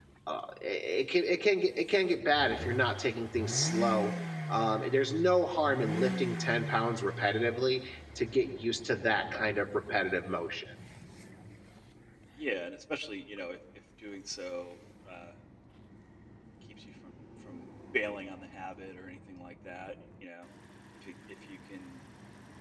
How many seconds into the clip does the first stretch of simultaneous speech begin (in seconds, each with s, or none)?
none